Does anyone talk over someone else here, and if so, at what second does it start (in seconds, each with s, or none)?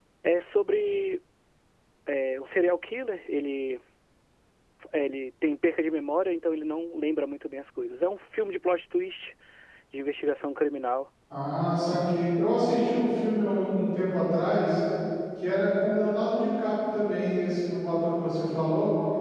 none